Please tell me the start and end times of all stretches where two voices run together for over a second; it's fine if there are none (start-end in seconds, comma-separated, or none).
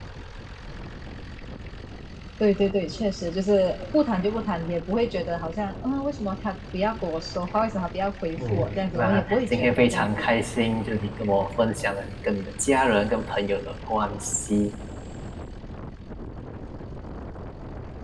8.5-10.3